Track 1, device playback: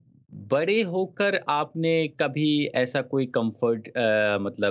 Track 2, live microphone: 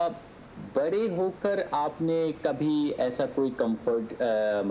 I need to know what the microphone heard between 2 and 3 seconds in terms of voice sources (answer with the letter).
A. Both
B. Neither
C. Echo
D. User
C